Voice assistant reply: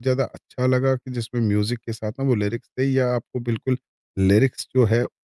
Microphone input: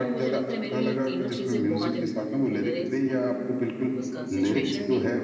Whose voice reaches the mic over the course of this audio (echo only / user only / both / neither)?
both